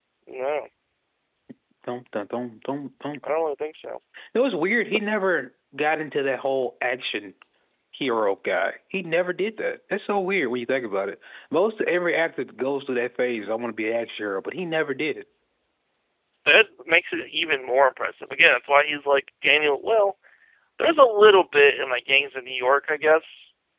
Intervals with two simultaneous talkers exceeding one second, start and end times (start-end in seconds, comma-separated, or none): none